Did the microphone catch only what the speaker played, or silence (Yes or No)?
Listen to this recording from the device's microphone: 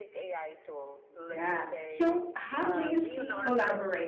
No